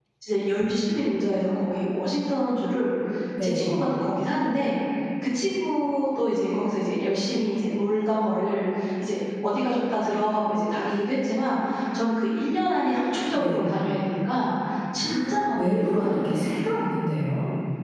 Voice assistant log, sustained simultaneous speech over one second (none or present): present